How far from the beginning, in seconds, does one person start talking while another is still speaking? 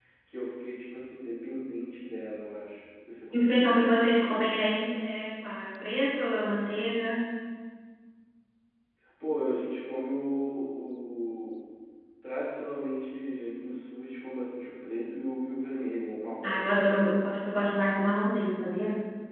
3.3 s

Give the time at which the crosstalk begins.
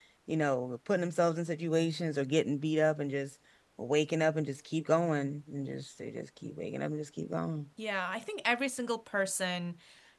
none

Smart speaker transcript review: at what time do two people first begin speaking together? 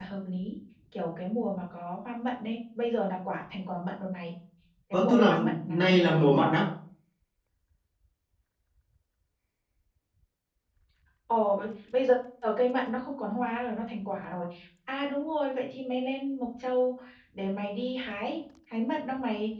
4.9 s

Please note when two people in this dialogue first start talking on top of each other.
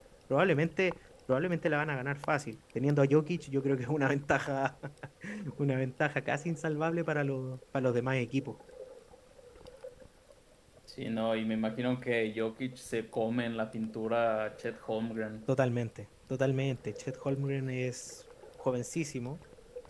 none

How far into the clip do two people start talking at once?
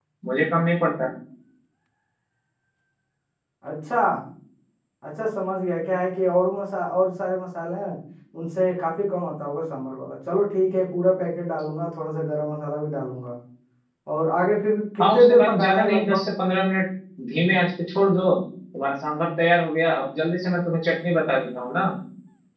15.0 s

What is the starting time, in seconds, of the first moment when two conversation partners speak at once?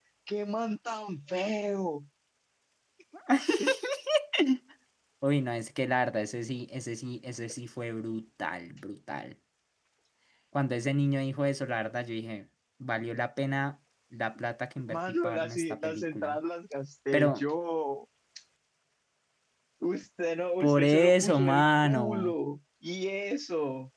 14.9 s

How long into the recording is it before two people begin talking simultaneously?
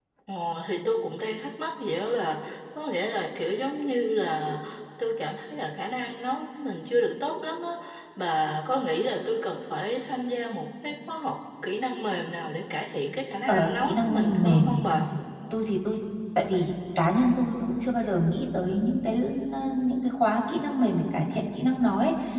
13.5 s

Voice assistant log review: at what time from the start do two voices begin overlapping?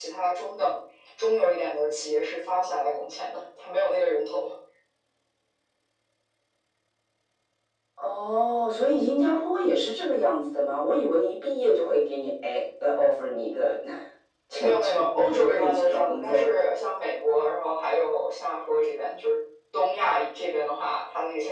14.6 s

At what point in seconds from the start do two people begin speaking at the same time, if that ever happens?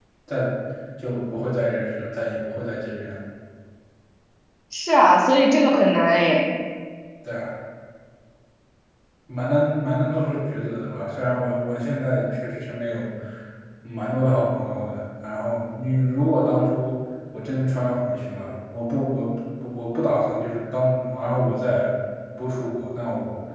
none

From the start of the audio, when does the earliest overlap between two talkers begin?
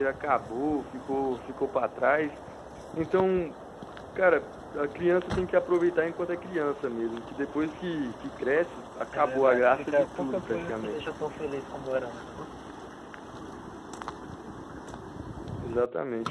9.1 s

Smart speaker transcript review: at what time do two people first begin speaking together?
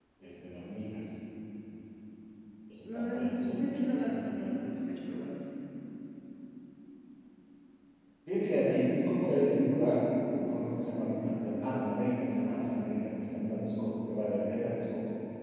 2.9 s

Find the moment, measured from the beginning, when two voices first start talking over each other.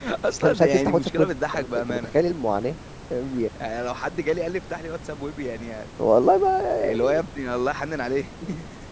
0.5 s

